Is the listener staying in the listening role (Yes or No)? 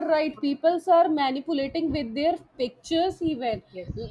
Yes